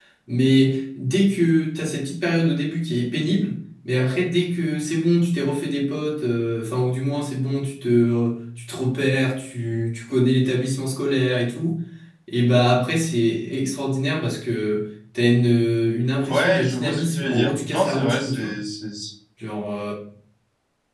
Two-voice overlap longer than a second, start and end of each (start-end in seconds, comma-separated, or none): 16.3-18.5